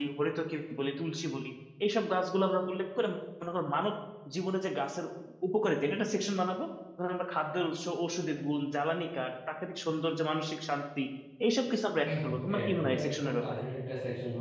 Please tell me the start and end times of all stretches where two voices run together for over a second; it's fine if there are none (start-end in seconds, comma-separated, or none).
12.1-13.6